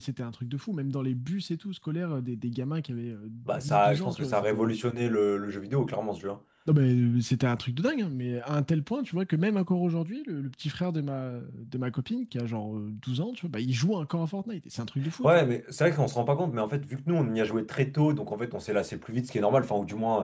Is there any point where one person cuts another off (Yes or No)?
Yes